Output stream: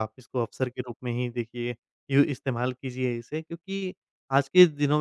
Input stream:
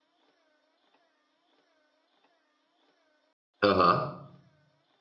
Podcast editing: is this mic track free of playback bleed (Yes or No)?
Yes